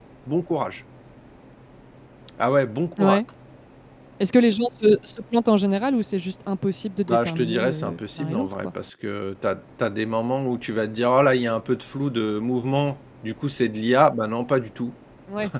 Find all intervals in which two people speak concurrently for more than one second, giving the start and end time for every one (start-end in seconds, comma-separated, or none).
7.1-8.7